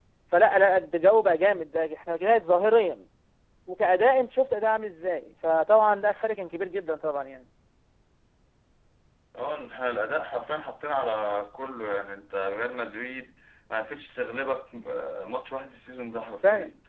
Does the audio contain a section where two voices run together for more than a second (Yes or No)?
No